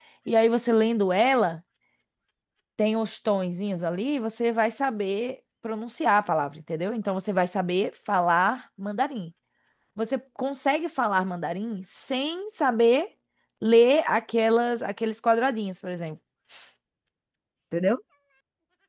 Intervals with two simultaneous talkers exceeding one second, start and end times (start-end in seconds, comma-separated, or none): none